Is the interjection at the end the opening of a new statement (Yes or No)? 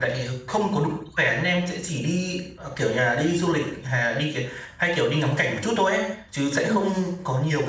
No